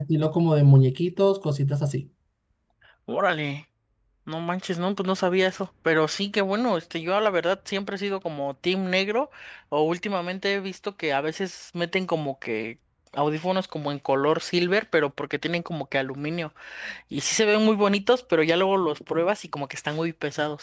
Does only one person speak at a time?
Yes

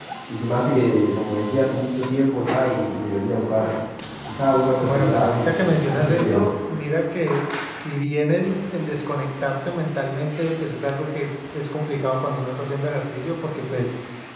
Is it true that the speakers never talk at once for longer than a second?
No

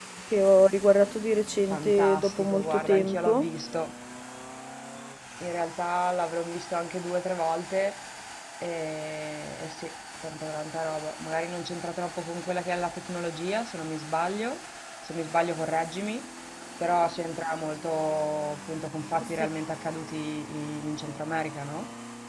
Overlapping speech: Yes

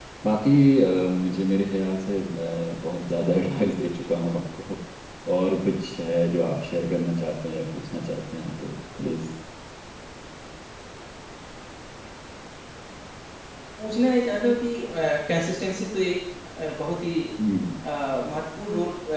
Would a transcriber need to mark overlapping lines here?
No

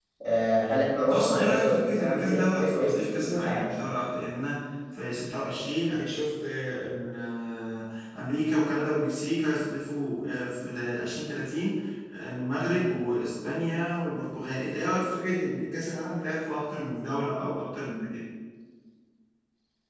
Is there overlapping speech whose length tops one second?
Yes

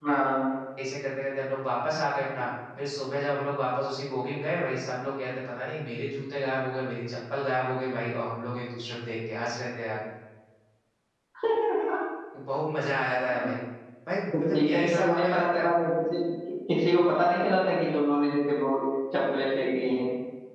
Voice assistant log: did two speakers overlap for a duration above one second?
Yes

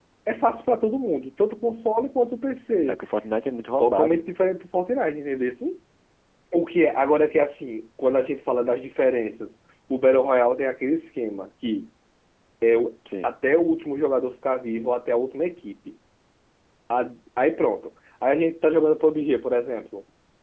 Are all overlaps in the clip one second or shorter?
Yes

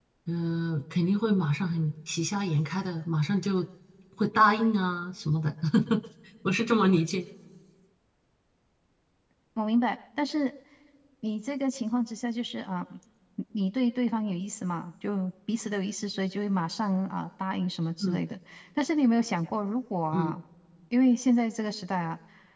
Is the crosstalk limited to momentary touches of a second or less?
Yes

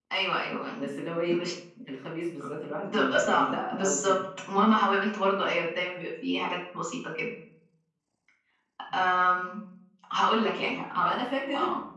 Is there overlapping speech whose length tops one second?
Yes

